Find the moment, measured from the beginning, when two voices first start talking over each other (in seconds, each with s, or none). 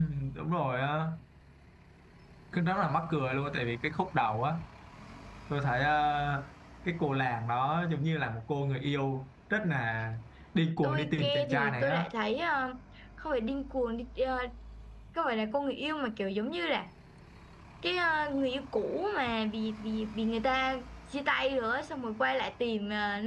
10.8 s